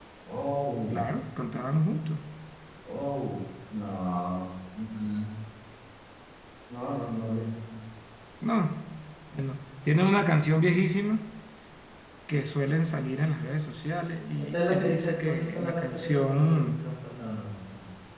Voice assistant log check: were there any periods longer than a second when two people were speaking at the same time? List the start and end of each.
14.4-16.8

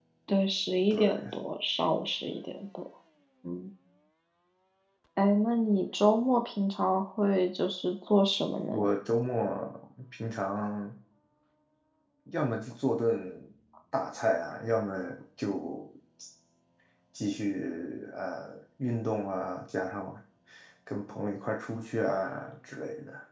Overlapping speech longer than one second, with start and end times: none

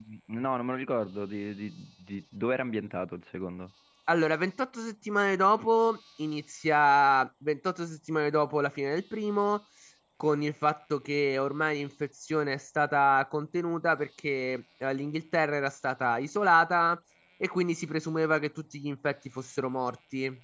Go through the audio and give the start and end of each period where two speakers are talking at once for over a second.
none

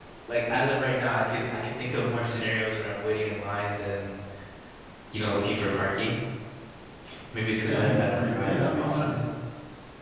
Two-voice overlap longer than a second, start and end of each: 7.6-9.2

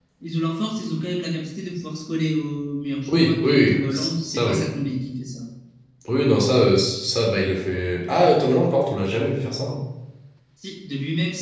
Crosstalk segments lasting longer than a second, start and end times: 3.1-4.5

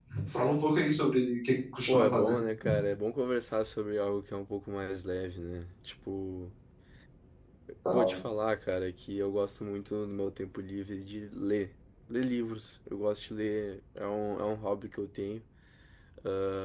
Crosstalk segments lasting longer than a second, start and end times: none

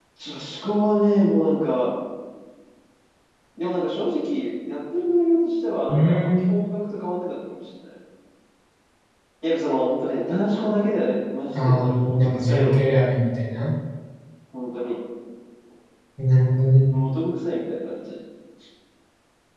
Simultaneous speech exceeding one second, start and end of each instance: 11.6-12.8

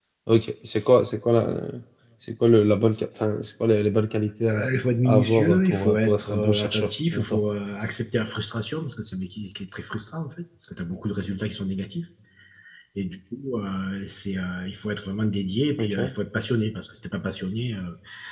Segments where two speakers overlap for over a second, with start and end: 5.0-7.4

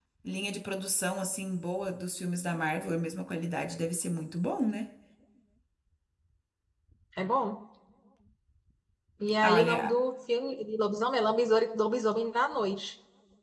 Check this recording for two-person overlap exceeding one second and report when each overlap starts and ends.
none

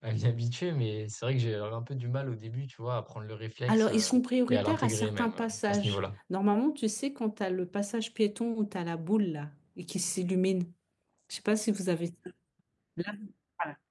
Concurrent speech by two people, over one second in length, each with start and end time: 4.5-6.0

